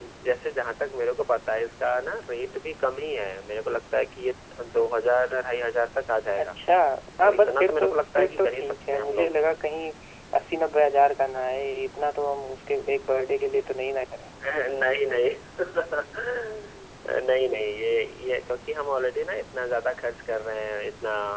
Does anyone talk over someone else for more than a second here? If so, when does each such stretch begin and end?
7.2-9.3

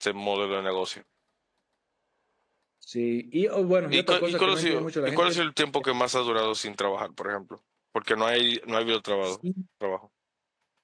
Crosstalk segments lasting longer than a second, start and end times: 3.9-5.4

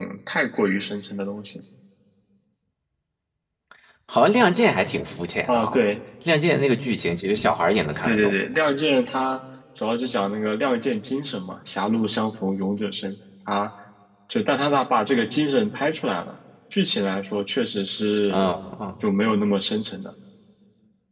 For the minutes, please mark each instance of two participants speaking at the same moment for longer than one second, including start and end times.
none

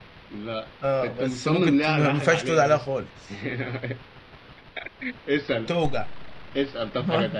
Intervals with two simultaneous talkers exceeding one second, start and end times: 1.0-2.9

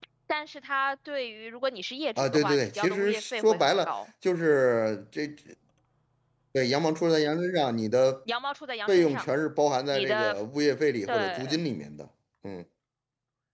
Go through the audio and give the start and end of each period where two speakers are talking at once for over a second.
2.2-3.9

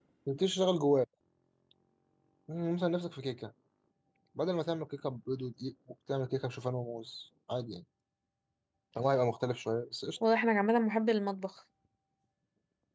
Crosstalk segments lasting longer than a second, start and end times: none

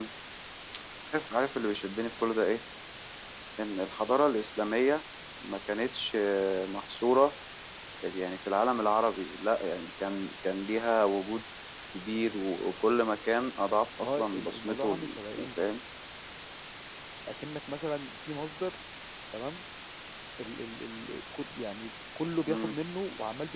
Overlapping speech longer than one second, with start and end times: 14.0-15.6

